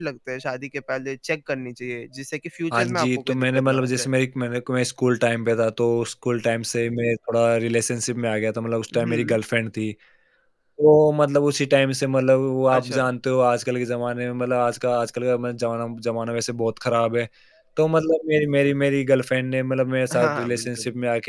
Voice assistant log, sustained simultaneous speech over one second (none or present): present